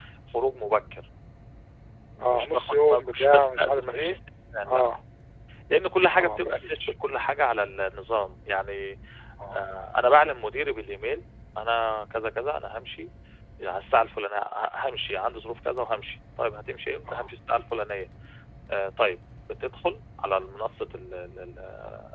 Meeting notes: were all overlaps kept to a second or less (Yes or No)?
No